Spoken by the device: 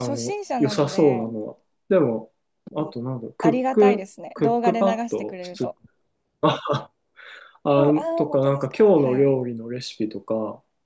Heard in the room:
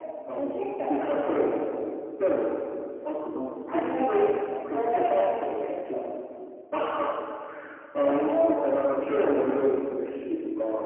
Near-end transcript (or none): none